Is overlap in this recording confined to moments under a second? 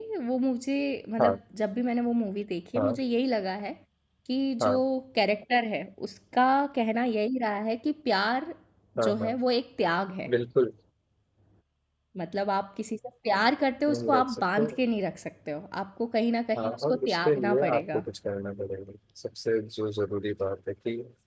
No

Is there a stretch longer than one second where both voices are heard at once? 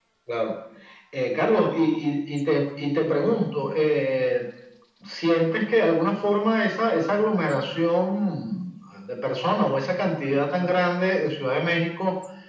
No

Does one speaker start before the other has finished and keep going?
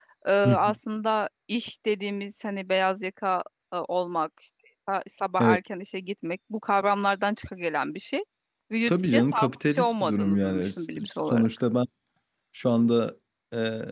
Yes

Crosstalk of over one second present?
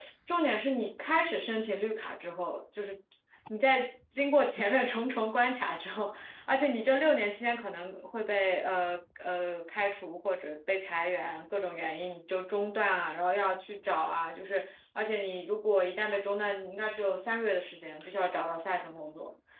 No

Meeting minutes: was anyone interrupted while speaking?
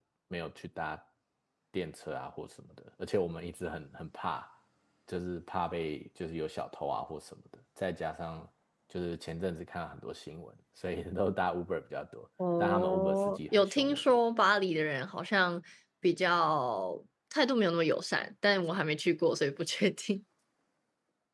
Yes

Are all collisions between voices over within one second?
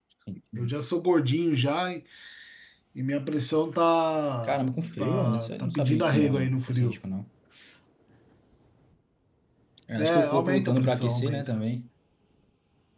No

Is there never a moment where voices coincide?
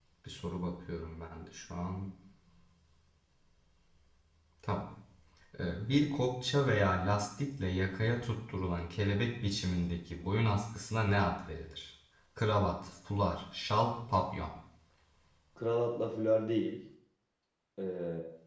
Yes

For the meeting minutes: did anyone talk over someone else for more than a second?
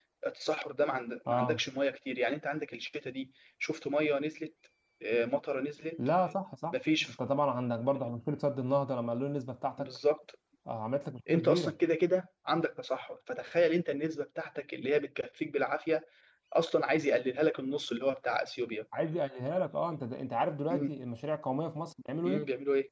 No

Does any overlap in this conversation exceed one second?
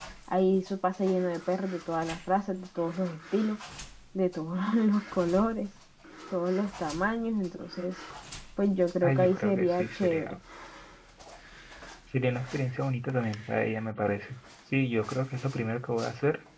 Yes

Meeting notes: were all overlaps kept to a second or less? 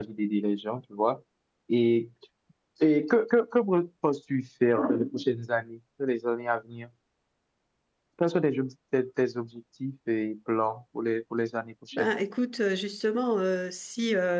Yes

